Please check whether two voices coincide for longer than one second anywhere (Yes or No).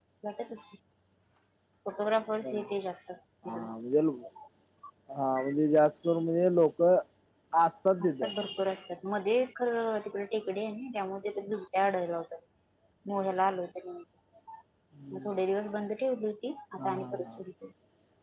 No